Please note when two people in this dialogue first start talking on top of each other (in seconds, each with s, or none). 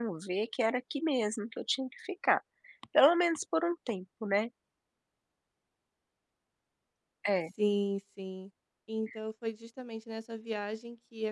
none